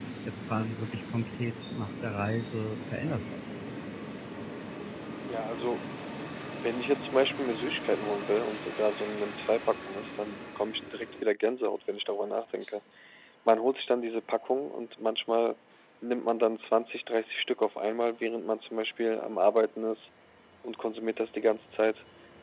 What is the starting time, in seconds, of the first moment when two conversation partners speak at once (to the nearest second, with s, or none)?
none